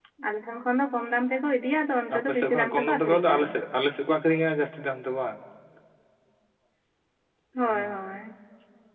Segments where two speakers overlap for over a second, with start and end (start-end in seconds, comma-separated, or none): 2.2-3.4